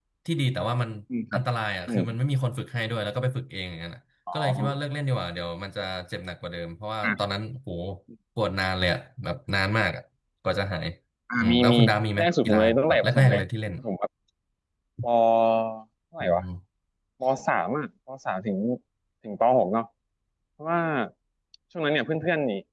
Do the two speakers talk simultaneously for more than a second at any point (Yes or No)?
Yes